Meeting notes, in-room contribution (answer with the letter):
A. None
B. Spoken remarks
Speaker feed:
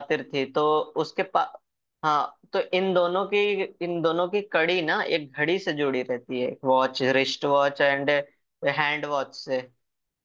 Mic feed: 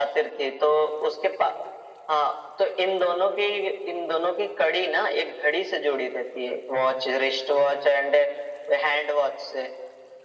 A